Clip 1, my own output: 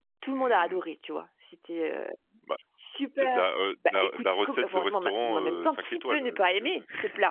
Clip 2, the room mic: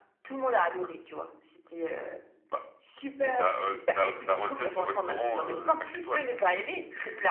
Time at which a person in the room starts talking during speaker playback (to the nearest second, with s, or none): none